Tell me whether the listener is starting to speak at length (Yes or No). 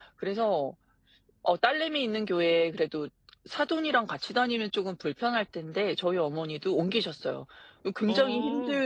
No